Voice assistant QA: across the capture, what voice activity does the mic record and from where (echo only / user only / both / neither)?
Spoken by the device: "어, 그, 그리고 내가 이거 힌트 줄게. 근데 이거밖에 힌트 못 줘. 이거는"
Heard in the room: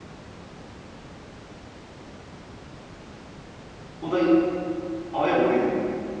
user only